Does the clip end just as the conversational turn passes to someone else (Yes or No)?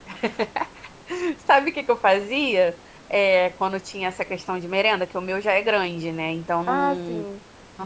No